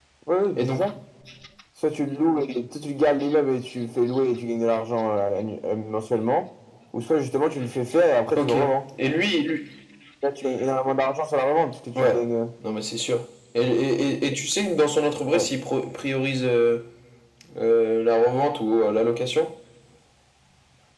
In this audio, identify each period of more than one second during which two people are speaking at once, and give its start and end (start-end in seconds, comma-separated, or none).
none